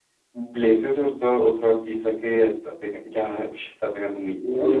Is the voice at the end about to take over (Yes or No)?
Yes